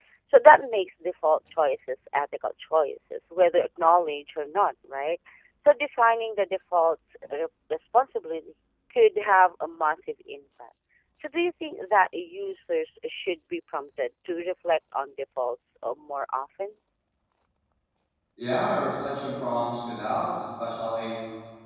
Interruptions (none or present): none